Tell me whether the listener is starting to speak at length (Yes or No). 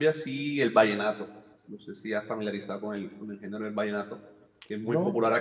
No